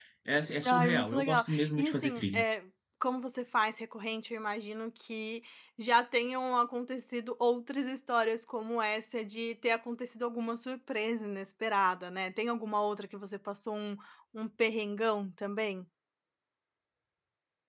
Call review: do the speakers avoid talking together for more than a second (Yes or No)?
No